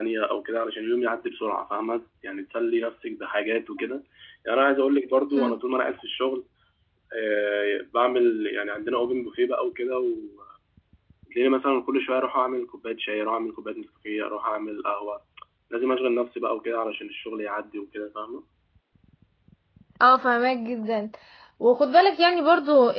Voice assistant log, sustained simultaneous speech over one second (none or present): none